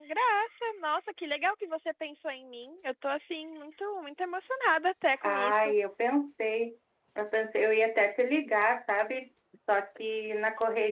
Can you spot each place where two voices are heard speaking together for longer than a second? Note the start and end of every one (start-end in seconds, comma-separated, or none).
none